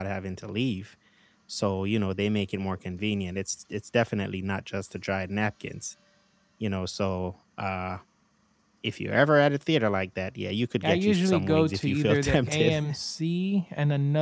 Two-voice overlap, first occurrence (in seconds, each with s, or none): 10.8 s